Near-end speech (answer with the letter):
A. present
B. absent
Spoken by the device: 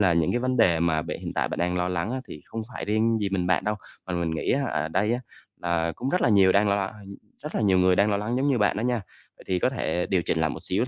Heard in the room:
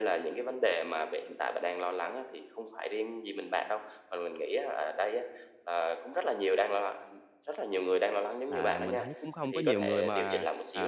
A